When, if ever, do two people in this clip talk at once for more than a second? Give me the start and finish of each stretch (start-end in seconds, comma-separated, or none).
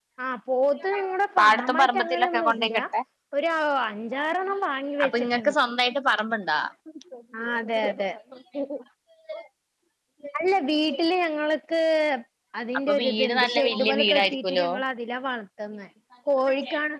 1.4-2.8, 12.9-14.7